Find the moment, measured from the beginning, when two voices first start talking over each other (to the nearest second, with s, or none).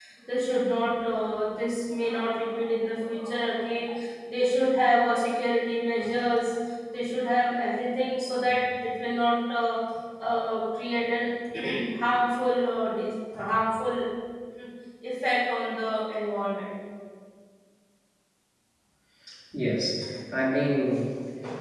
none